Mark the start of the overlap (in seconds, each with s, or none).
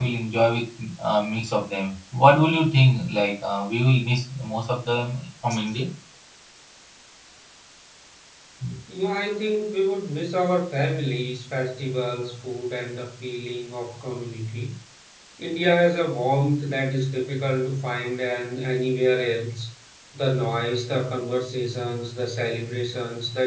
none